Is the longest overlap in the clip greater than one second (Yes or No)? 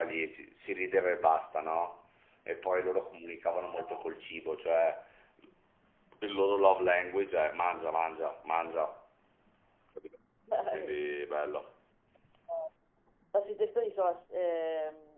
No